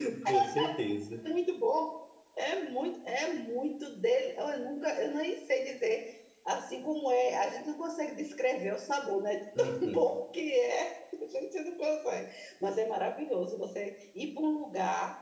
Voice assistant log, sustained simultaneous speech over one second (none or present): none